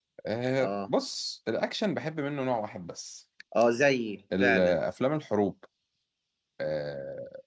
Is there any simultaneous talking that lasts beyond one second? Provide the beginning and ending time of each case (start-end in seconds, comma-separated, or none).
none